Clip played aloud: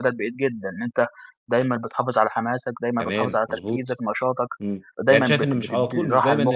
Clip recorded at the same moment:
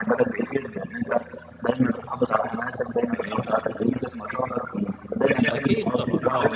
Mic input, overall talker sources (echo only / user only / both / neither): both